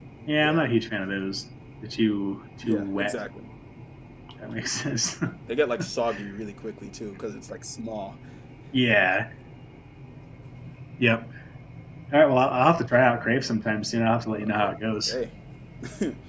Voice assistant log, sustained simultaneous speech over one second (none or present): none